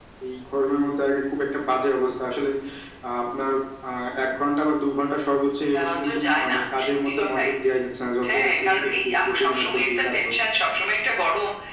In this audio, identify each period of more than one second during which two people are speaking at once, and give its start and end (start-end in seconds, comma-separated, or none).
5.7-7.5, 8.3-10.4